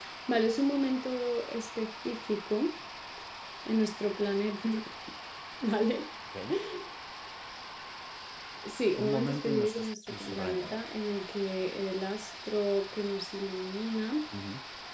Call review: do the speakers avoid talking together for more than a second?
No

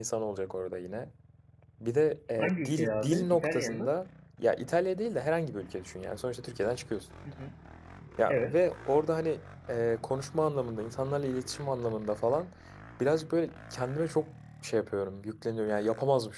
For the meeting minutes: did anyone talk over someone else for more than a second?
Yes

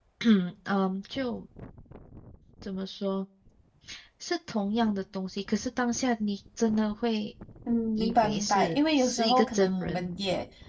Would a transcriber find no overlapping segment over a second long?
No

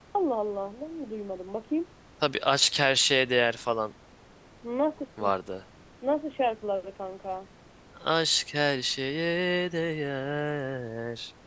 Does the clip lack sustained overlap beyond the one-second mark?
Yes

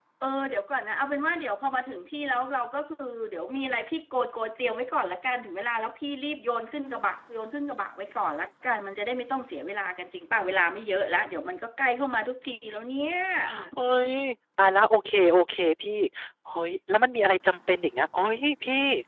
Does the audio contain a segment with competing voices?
No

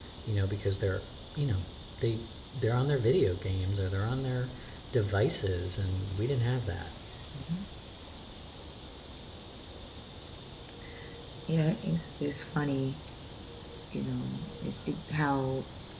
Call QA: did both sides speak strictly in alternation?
Yes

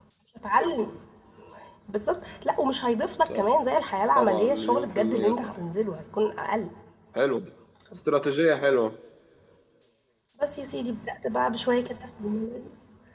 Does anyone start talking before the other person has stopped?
Yes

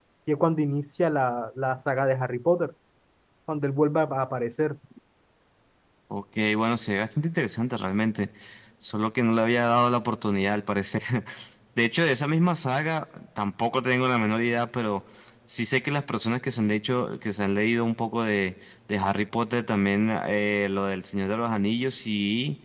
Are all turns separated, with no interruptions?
Yes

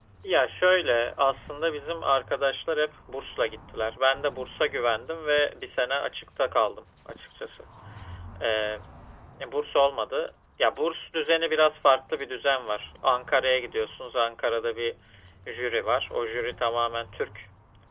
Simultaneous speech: No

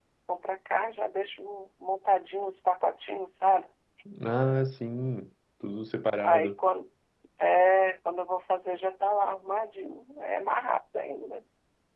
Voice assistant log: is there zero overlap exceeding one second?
Yes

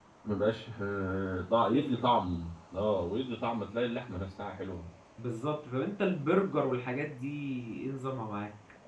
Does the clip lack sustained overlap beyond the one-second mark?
Yes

